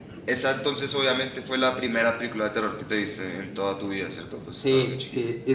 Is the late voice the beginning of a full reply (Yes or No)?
Yes